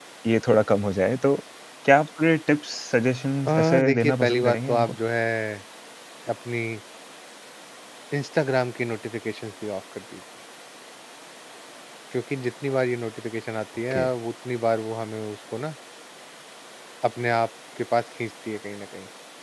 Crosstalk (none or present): present